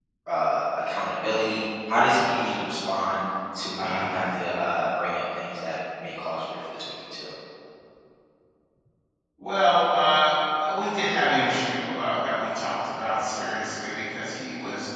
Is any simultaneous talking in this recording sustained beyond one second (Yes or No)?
No